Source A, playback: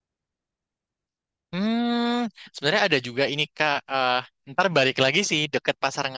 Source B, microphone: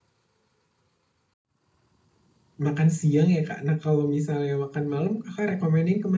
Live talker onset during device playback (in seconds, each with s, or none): 2.7 s